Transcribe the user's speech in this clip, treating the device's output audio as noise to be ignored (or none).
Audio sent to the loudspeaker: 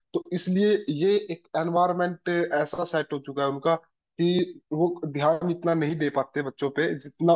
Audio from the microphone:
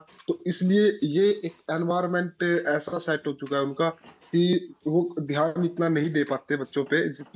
none